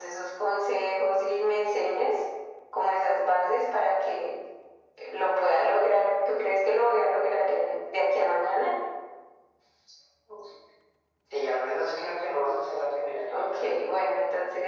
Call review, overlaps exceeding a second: none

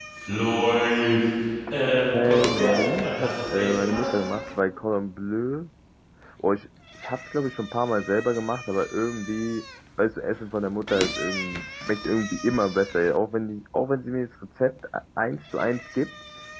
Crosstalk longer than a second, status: present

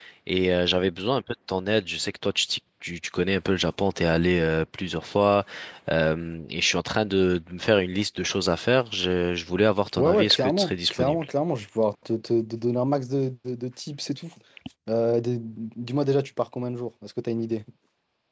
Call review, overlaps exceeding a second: present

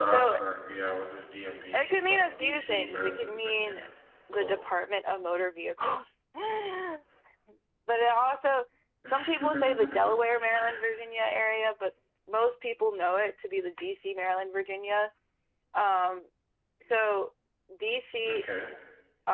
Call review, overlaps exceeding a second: present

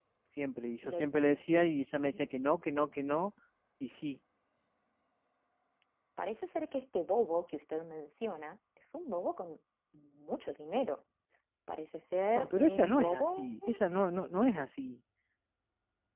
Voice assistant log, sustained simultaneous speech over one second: present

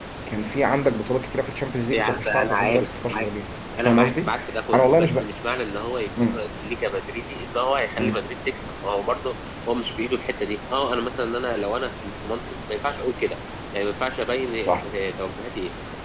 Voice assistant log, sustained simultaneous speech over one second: present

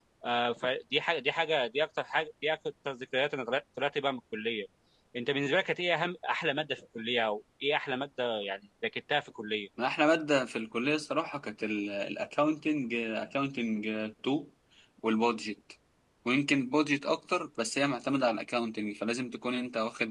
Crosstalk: none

